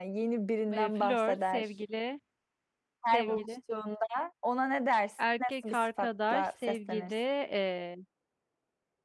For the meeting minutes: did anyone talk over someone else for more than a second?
Yes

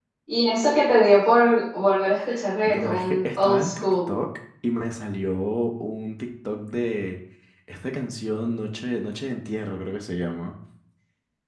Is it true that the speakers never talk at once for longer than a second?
No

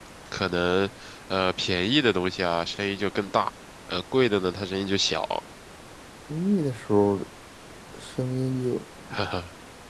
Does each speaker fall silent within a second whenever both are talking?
Yes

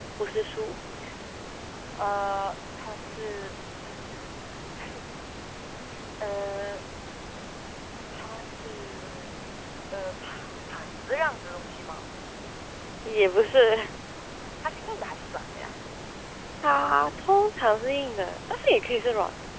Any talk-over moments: No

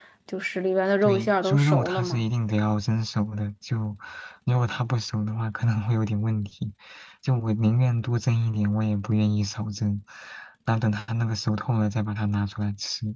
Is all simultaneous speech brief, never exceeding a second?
No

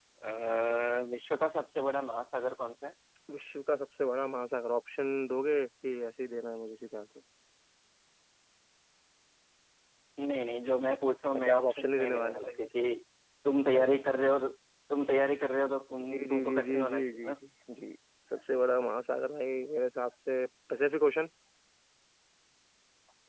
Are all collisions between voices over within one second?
No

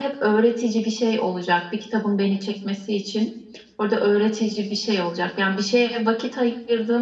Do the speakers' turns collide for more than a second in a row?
No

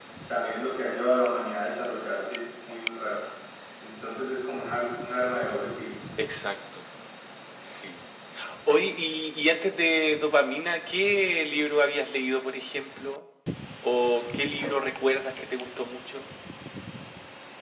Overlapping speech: No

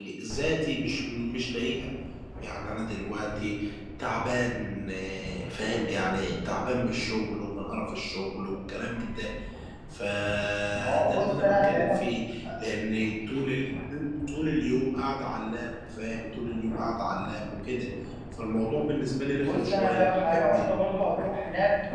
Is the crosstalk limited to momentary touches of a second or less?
No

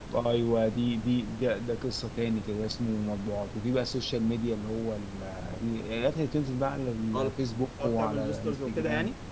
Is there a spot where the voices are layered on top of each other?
Yes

